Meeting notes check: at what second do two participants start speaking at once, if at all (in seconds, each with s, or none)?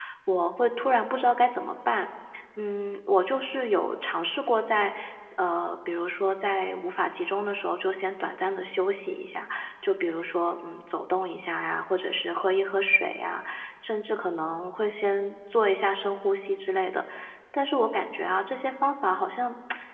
none